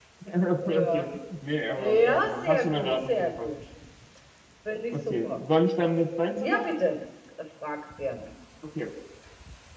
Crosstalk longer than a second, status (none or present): present